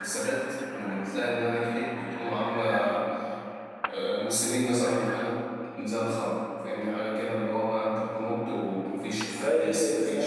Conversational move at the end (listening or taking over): taking over